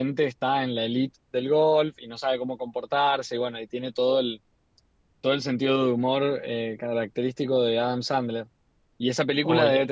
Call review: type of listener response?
listening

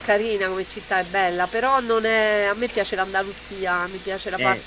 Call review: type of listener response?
listening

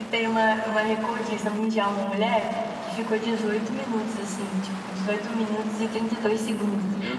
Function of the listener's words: listening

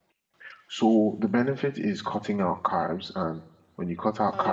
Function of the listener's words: listening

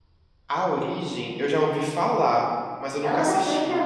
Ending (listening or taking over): taking over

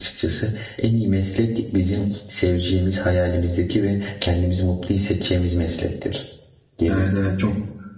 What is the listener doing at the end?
taking over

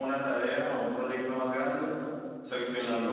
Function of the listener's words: listening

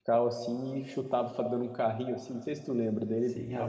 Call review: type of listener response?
taking over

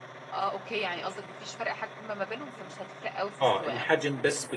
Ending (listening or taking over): taking over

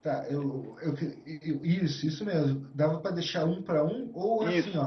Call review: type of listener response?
listening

